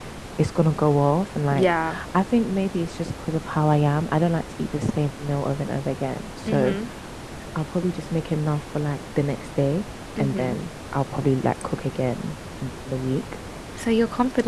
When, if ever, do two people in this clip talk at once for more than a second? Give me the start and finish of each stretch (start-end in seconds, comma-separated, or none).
none